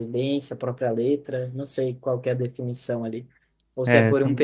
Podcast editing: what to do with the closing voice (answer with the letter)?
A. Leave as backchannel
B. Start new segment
A